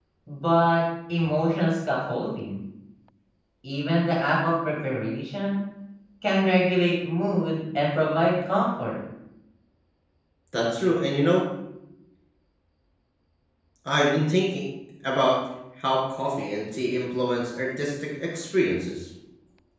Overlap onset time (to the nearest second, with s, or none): none